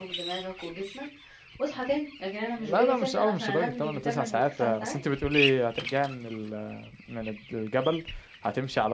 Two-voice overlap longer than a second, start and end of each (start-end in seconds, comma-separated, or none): 2.6-5.0